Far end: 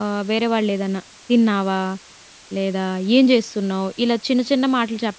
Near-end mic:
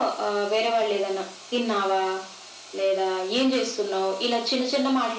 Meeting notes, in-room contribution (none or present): none